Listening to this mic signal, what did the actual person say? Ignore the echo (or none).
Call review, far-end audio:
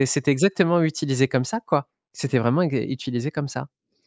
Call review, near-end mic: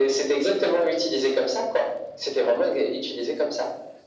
none